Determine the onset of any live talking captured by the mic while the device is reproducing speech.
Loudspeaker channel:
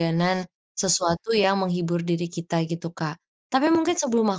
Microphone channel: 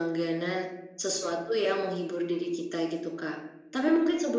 none

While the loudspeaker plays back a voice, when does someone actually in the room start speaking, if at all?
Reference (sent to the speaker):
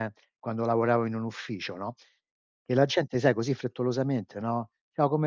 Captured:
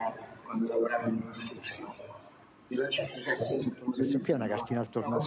3.9 s

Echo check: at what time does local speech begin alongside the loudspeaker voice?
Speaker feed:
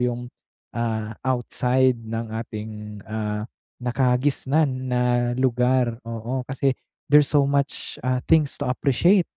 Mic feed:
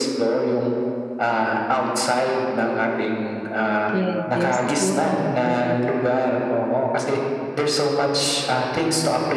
3.9 s

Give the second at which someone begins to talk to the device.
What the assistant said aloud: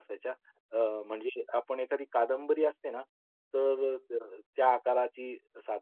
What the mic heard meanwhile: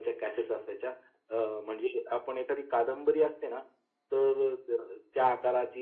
none

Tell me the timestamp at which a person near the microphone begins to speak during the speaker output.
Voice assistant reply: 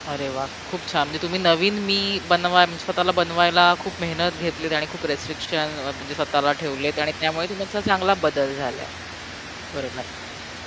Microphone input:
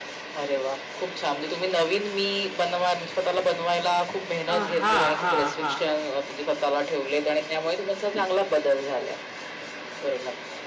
4.5 s

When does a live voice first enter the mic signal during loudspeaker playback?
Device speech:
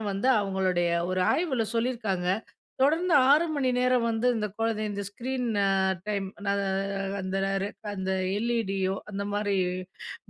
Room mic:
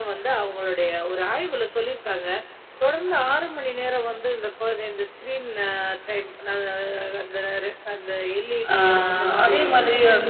8.7 s

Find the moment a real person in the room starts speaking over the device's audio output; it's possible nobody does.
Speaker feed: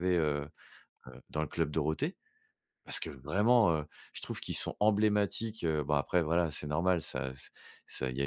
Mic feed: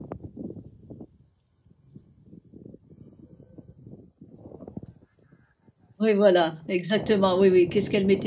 6.0 s

